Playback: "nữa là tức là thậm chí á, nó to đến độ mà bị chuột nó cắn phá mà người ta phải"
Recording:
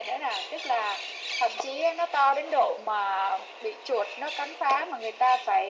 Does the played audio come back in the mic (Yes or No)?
Yes